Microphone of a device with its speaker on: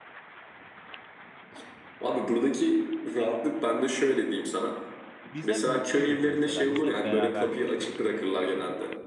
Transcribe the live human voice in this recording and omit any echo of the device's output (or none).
Biz hep mutluyduk mesela. Biz hep beraberdik.